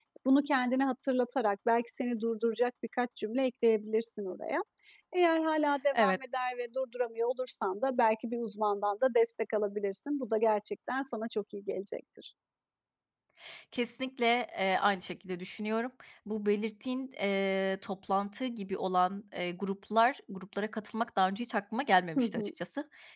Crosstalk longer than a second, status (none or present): none